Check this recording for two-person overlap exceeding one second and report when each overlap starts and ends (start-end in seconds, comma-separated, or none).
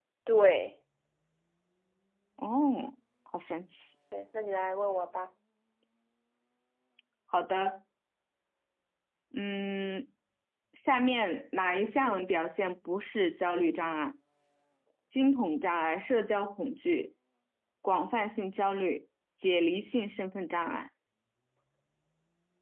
none